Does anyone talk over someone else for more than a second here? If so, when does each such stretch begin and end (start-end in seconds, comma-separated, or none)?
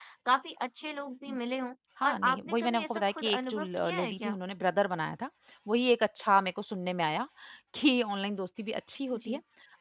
2.0-4.4